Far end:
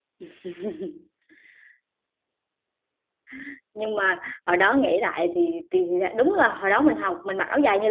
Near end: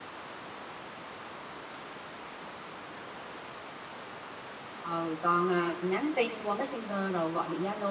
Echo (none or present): none